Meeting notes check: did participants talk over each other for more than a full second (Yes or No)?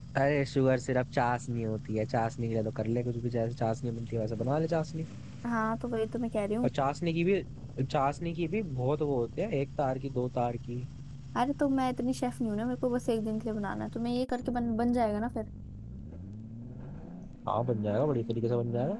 No